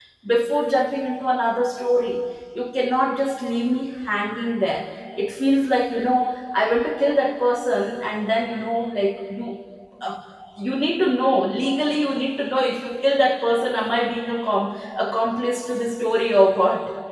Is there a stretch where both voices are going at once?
No

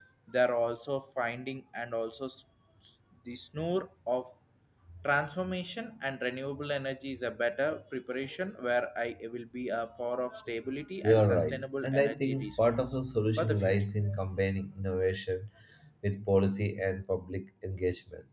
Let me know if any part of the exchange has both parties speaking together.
Yes, from 11.0 s

